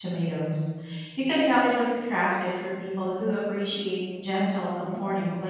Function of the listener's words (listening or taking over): taking over